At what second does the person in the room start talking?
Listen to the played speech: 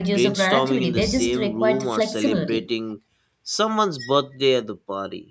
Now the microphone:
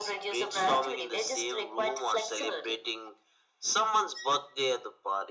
none

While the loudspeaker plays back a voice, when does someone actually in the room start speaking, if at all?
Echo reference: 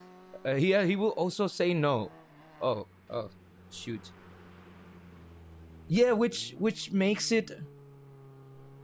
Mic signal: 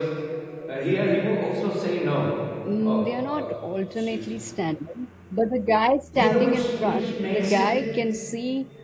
2.6 s

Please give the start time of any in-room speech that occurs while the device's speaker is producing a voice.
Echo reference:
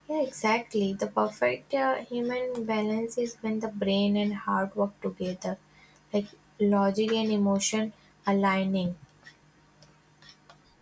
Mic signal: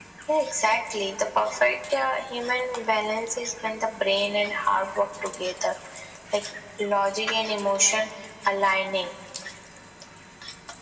none

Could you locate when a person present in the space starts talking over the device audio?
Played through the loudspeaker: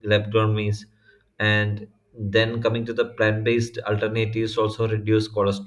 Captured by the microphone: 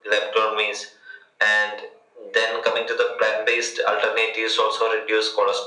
none

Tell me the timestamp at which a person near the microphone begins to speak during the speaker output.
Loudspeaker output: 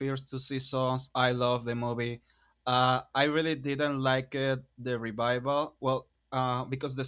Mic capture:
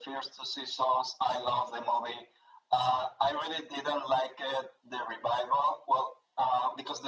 none

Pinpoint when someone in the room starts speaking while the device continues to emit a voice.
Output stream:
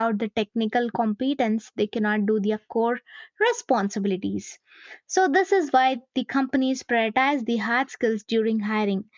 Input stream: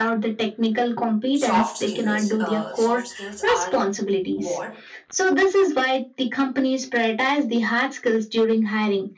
1.3 s

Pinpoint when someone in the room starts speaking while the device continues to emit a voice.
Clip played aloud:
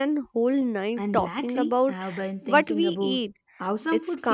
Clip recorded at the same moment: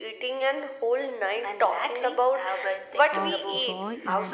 3.1 s

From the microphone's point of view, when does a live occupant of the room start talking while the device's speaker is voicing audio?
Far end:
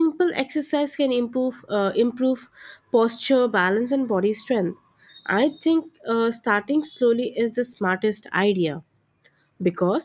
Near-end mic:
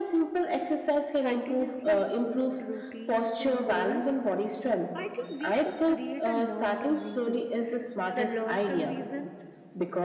1.2 s

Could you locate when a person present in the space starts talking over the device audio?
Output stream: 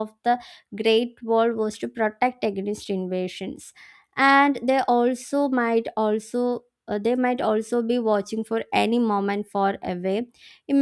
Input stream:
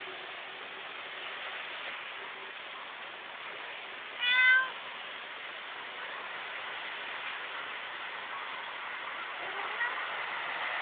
none

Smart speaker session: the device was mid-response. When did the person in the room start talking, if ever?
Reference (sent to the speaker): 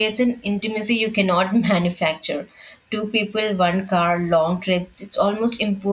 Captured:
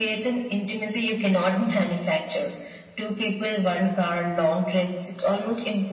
none

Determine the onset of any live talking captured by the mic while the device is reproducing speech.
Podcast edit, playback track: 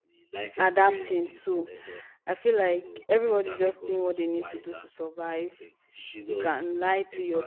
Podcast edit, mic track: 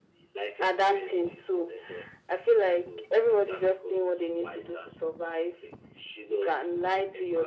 none

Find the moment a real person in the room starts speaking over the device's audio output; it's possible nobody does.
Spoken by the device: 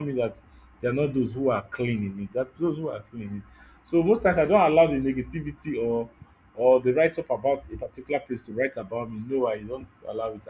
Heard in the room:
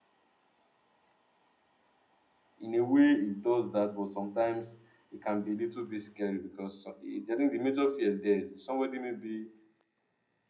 2.6 s

